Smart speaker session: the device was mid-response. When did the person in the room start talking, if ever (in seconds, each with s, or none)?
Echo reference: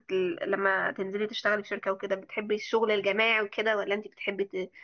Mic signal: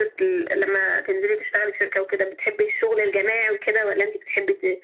none